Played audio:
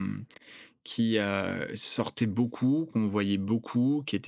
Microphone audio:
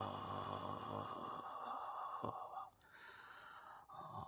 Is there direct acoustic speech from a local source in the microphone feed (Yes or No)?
No